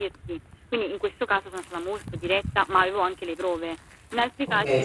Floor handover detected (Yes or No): Yes